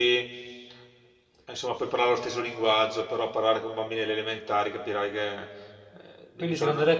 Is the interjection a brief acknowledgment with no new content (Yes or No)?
No